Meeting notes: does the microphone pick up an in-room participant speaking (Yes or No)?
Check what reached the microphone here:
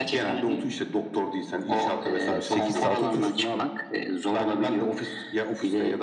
Yes